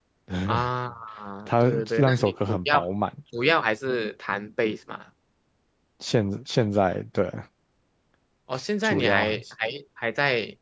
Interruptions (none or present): present